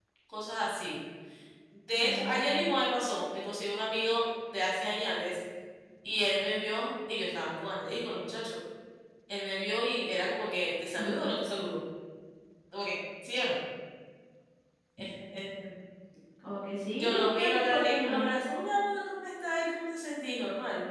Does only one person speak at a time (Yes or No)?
No